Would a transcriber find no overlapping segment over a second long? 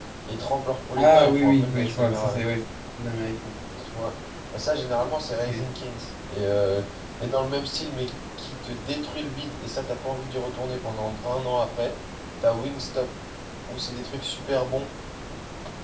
No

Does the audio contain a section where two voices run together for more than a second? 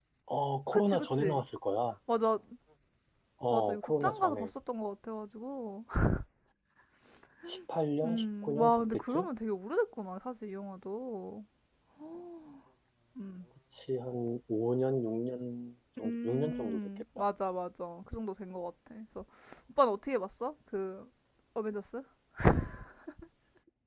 Yes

